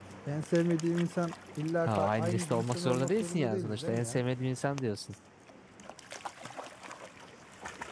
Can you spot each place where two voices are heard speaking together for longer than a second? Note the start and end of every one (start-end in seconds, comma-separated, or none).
1.9-4.2